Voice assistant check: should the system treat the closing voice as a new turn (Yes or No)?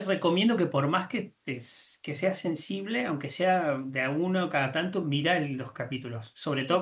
No